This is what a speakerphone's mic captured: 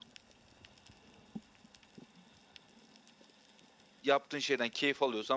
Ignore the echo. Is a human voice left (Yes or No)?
Yes